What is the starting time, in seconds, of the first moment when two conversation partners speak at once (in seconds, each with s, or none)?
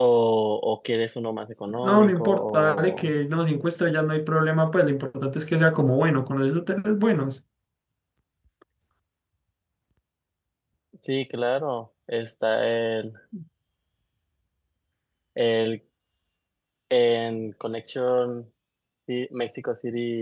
1.7 s